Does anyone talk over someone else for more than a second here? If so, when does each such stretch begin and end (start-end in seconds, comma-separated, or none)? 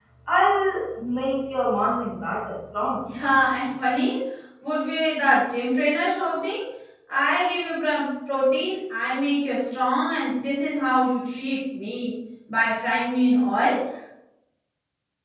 none